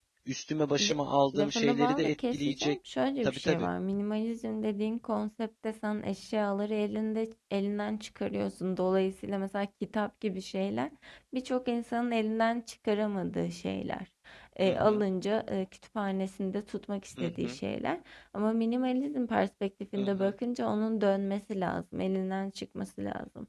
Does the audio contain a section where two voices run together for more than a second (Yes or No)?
Yes